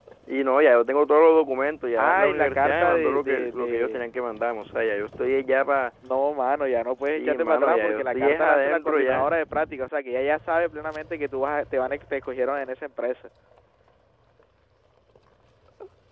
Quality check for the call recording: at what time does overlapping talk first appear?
2.0 s

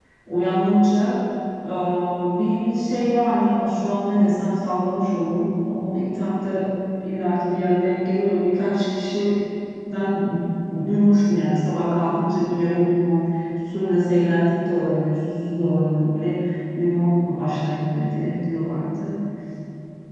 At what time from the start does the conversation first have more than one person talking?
none

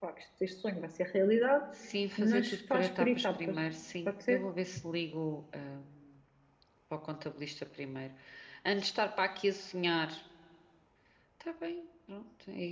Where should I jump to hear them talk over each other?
2.2 s

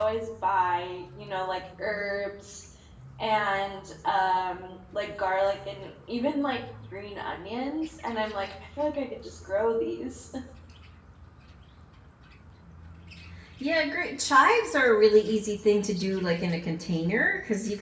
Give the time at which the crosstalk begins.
none

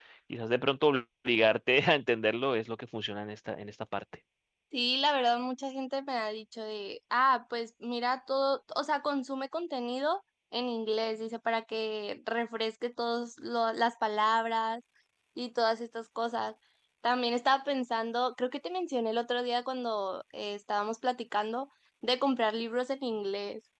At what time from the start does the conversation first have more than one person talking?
none

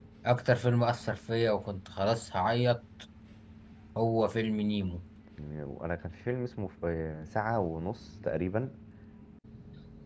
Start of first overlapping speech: none

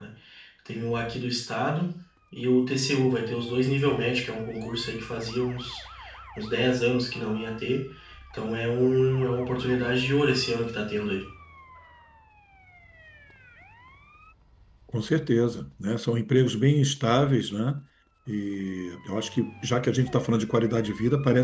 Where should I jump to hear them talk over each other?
none

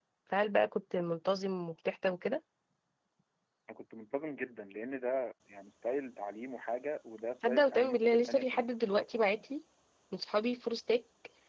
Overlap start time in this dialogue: 7.4 s

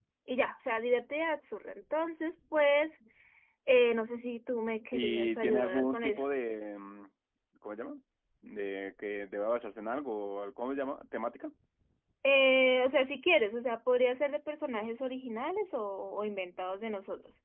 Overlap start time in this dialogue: 4.9 s

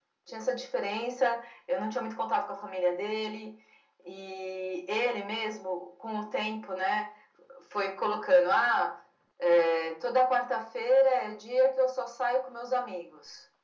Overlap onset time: none

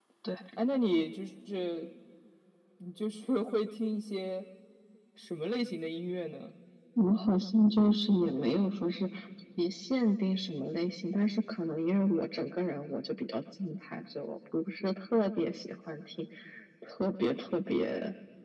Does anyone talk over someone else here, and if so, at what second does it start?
none

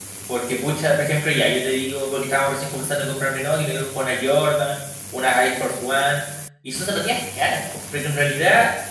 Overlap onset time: none

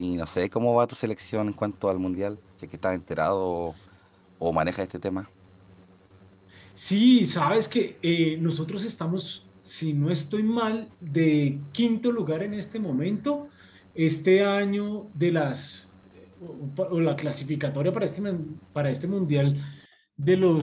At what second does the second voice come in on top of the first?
none

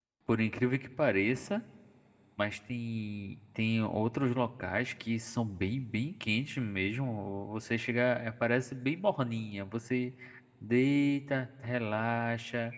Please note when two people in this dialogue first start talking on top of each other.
none

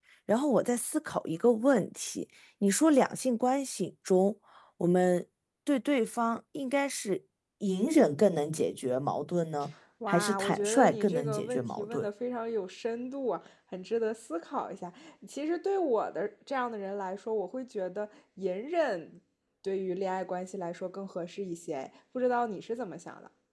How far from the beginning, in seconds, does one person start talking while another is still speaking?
10.0 s

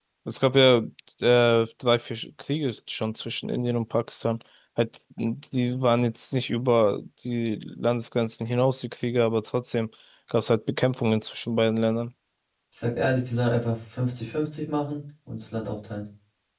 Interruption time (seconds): none

